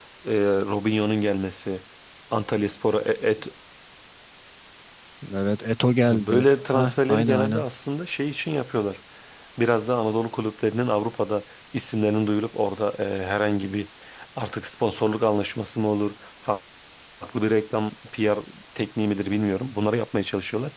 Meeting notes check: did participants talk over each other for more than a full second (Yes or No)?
Yes